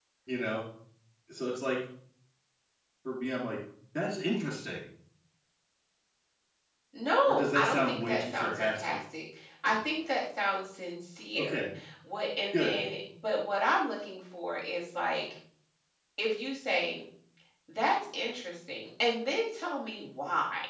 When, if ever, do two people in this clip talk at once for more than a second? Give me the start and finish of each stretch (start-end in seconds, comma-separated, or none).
7.5-9.0